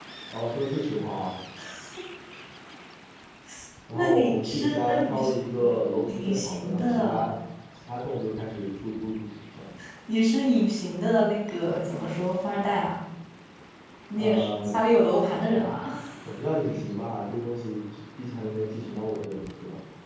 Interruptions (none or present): present